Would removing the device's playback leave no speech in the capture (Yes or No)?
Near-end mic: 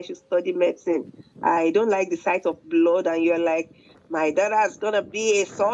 Yes